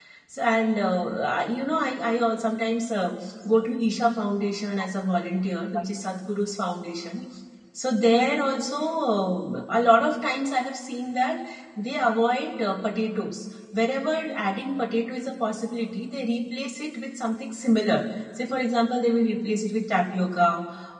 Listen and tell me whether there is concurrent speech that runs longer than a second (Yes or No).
No